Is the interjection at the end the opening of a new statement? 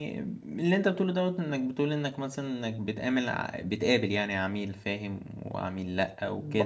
Yes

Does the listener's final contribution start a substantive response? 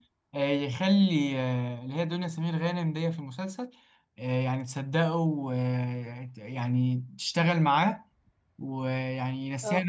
No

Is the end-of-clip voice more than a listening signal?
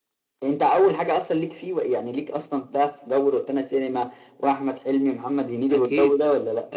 Yes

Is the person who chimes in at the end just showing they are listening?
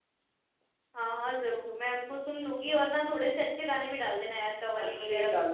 No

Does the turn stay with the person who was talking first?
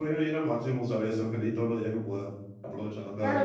No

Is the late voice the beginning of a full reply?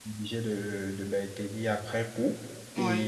No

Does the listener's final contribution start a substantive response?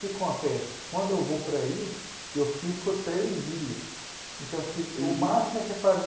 No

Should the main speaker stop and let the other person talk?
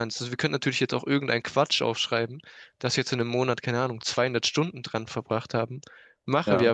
No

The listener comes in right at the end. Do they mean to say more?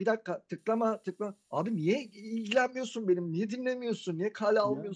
No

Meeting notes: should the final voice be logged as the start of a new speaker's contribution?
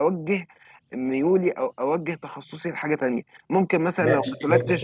Yes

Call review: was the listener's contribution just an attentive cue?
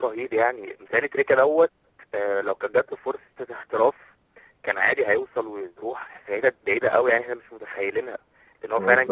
No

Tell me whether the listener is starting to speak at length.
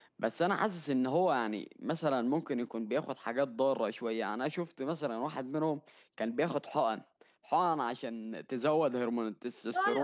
Yes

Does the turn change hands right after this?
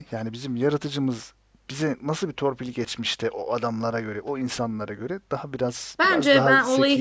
Yes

